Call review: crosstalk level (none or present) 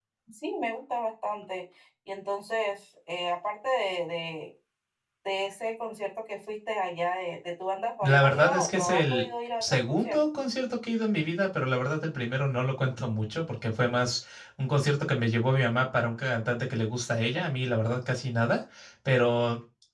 present